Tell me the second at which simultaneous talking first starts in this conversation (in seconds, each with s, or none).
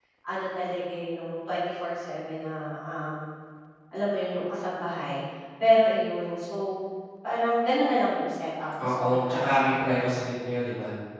8.8 s